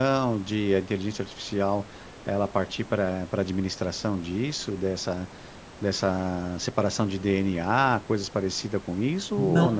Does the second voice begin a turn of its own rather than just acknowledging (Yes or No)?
Yes